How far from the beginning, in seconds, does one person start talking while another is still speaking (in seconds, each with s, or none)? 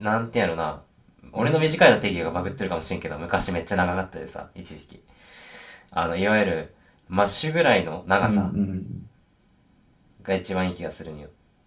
1.4 s